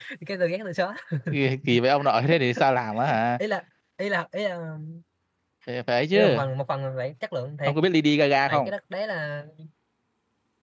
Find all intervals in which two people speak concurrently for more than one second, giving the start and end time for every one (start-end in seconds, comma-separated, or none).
none